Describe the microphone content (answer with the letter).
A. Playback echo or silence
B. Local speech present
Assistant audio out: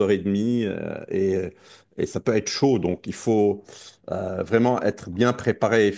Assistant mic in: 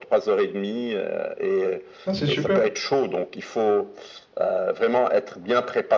B